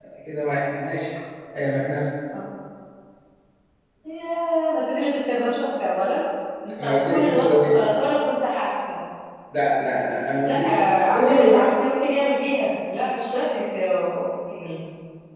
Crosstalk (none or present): present